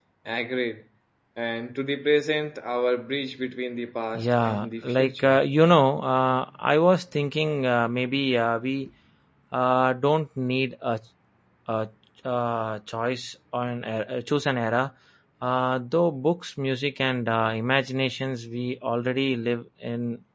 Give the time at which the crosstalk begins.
4 s

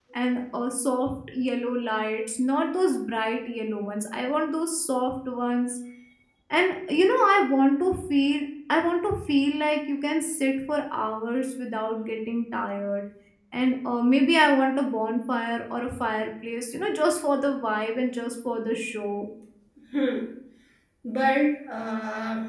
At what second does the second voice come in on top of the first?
none

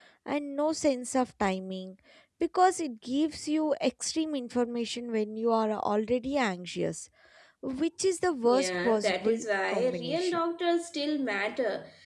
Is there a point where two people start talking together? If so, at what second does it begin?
8 s

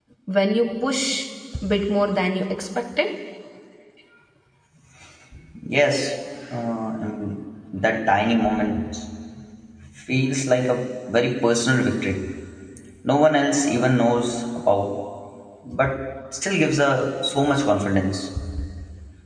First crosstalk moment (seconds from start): none

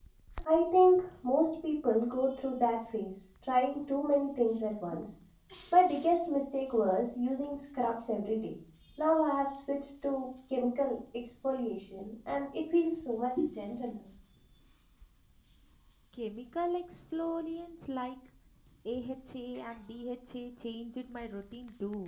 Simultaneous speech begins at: none

